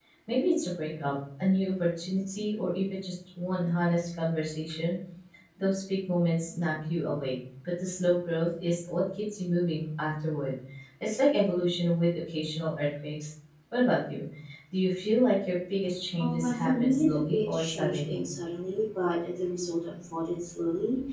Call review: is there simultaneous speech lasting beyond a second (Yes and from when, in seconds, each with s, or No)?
Yes, from 16.1 s